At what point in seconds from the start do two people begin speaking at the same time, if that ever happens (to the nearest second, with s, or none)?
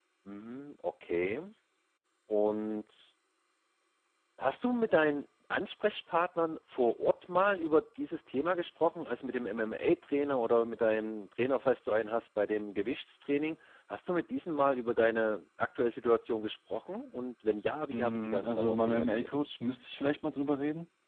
18 s